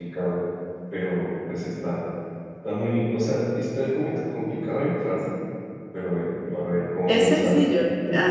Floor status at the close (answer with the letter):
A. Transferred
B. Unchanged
A